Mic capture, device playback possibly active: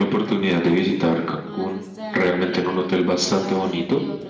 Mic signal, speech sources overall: echo only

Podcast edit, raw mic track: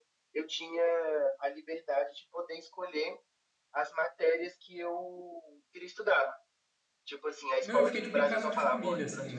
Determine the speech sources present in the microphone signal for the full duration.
both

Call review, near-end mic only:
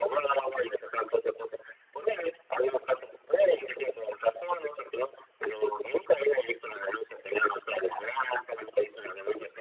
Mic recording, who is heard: echo only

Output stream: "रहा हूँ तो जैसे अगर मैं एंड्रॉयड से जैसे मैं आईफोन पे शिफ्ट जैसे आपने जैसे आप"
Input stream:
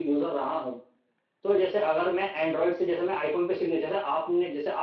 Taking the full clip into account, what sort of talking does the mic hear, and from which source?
echo only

